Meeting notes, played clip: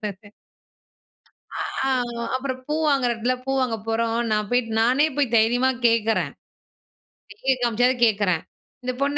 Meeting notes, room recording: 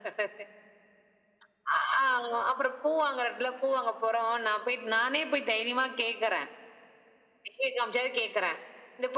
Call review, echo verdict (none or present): present